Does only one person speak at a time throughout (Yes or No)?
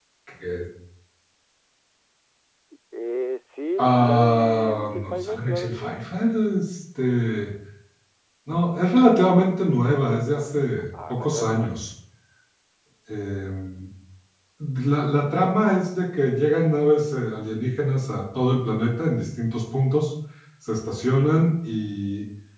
No